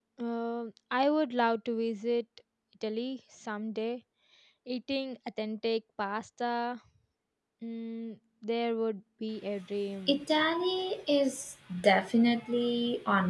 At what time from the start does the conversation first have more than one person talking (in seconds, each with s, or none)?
none